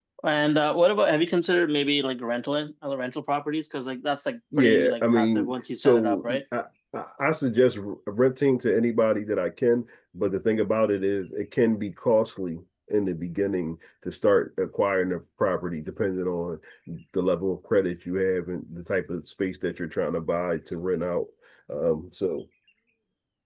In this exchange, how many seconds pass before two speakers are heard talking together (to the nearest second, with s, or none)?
5 s